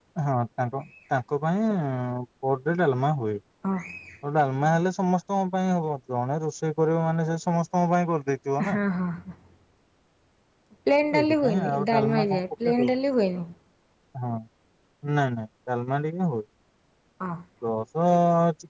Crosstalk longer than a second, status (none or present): present